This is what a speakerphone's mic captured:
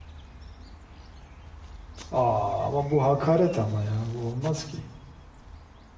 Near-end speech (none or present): present